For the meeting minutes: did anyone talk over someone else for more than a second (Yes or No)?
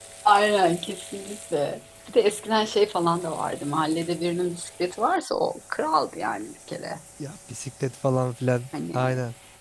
No